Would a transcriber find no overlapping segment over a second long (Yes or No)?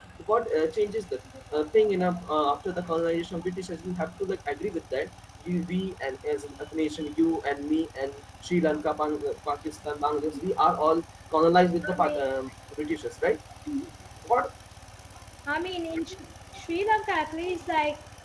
Yes